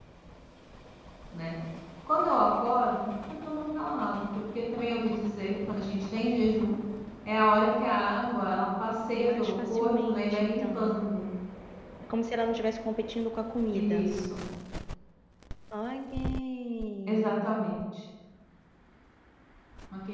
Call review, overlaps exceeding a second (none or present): present